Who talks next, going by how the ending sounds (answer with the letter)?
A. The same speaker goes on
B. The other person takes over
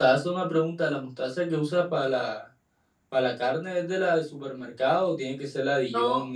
A